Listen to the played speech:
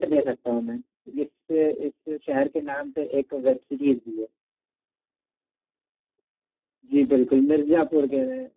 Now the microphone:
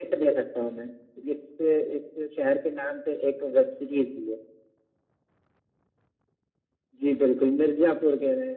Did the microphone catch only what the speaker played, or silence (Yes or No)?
Yes